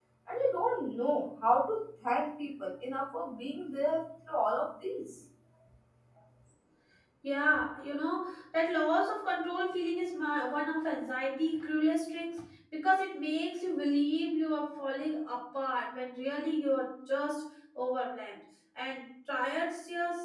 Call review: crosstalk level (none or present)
none